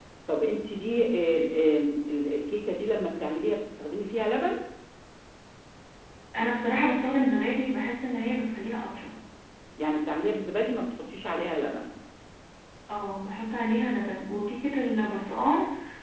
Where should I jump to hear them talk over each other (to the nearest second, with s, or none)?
none